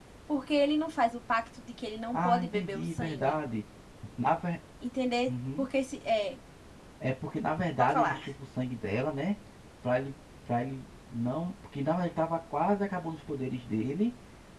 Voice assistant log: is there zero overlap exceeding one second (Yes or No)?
No